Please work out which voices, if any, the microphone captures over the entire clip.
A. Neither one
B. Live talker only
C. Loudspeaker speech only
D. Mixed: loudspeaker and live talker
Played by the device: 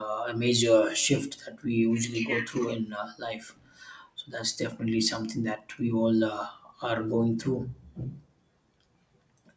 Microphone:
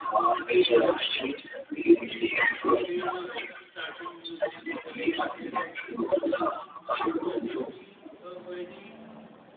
D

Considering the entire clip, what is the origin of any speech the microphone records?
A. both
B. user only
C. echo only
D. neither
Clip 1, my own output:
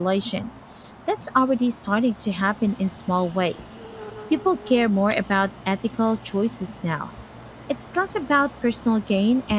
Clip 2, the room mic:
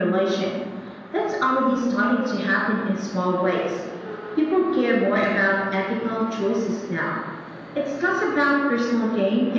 A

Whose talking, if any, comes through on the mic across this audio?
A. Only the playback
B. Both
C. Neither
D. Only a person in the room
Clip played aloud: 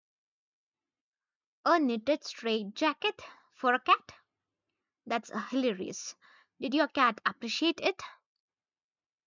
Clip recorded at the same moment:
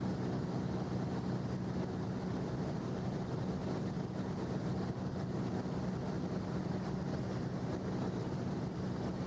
C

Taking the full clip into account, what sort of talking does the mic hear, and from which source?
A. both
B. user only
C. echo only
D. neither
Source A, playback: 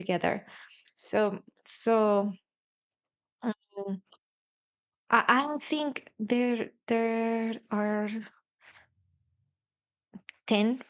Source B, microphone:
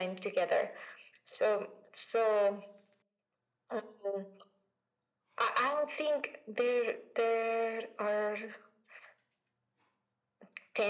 C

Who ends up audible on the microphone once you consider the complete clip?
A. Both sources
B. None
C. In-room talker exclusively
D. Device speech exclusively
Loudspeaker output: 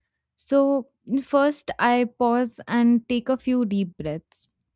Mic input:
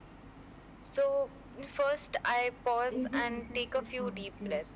A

